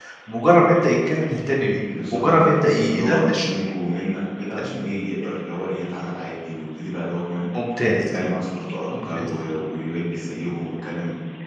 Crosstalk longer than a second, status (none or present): present